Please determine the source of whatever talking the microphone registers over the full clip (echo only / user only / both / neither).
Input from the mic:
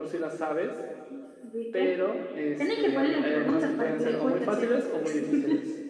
echo only